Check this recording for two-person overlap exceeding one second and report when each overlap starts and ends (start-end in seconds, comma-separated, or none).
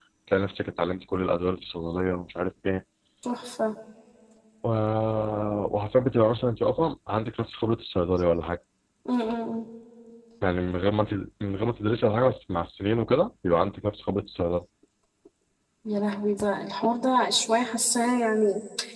none